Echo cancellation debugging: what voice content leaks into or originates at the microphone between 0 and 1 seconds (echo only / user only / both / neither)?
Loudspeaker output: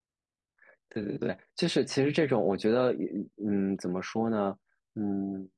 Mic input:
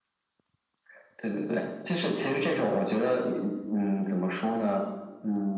neither